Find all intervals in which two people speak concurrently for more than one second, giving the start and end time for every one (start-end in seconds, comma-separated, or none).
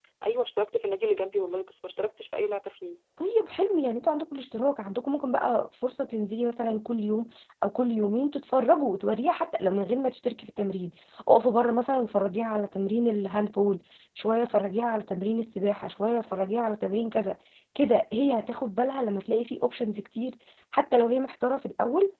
none